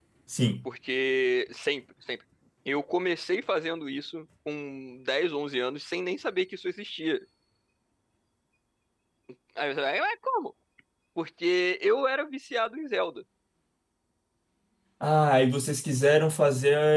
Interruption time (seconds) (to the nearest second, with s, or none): none